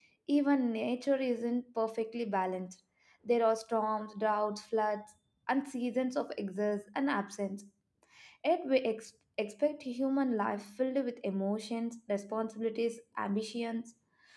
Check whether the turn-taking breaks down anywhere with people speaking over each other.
No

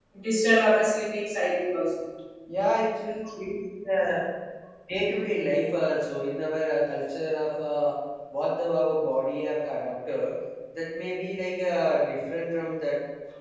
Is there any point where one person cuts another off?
No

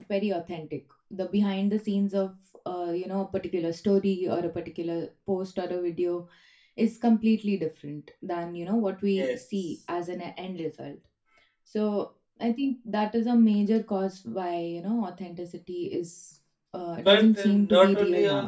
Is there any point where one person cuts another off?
Yes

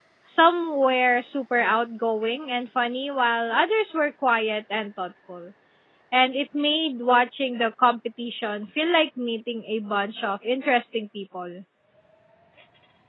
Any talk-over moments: No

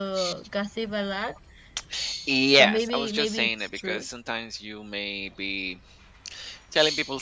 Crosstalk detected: Yes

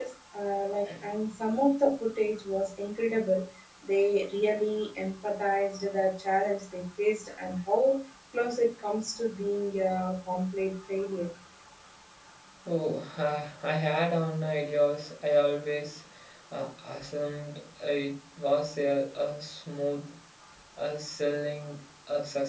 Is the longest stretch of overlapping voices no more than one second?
Yes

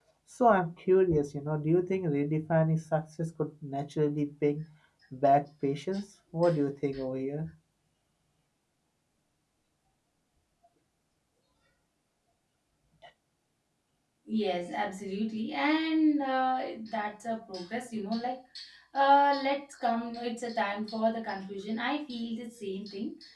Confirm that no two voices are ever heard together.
Yes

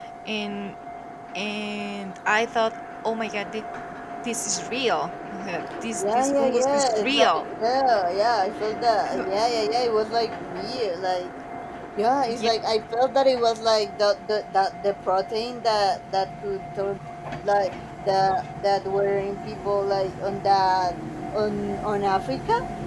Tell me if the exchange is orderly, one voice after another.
No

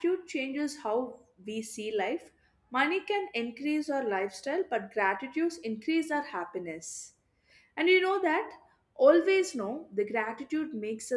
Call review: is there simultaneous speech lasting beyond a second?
No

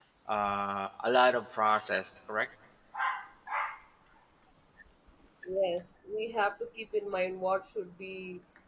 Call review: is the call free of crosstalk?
Yes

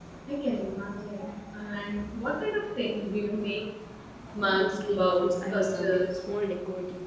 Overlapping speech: Yes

